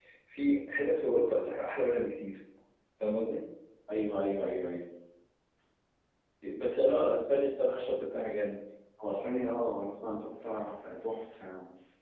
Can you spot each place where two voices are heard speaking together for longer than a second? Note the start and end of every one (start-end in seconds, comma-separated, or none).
none